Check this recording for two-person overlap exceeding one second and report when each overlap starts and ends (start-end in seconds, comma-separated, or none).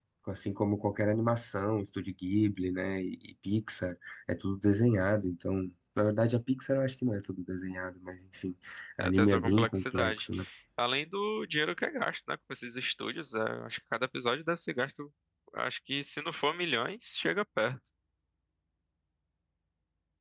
9.0-10.3